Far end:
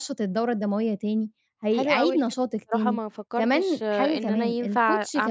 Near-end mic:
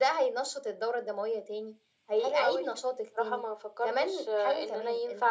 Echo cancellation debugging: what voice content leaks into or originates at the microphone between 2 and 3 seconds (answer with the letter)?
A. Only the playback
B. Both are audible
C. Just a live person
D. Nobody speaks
A